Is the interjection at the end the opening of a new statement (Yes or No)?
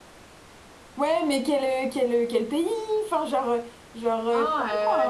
Yes